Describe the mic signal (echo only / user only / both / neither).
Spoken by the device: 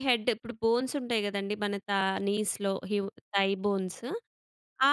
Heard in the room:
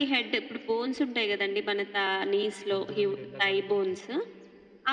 both